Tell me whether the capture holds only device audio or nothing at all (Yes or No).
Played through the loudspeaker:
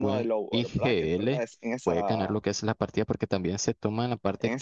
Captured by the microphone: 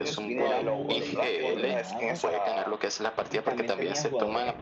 No